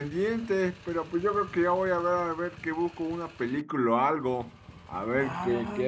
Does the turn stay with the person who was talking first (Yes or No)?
No